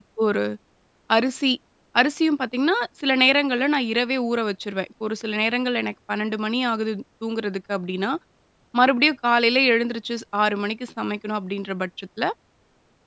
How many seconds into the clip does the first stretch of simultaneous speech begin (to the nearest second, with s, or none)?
none